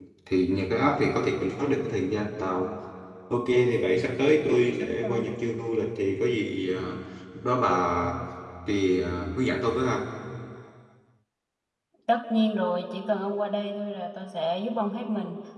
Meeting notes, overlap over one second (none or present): none